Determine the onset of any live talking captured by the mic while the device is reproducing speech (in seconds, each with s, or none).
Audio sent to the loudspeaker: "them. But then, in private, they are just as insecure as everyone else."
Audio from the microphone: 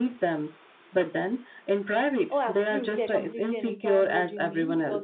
2.3 s